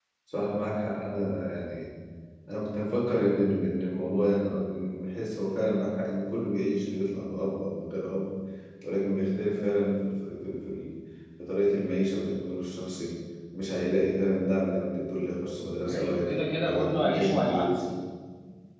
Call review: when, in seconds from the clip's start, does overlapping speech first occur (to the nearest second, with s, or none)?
16 s